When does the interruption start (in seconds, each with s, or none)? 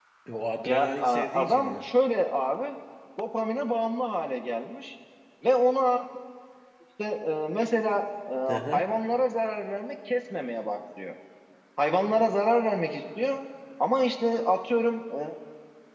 0.6 s